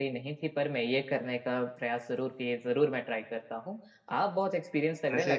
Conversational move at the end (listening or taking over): listening